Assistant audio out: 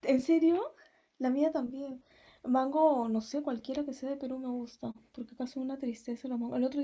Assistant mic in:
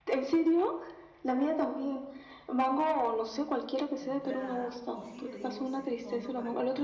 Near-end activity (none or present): present